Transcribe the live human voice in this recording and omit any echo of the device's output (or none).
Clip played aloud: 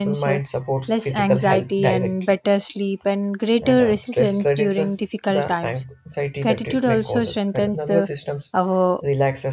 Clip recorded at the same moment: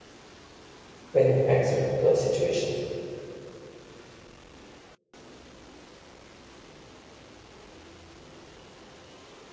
when you accept the situation.